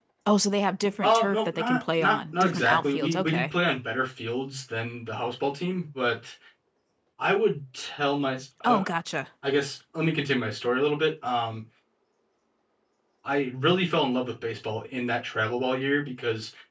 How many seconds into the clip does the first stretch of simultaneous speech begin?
1.0 s

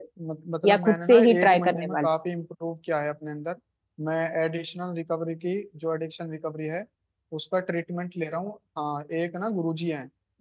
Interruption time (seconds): 0.7 s

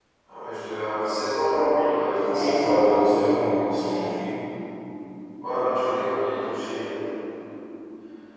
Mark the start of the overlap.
2.1 s

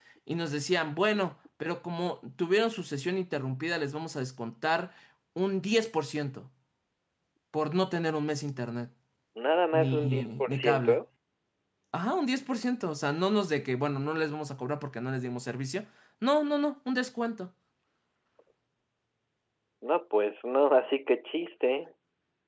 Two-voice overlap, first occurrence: 9.7 s

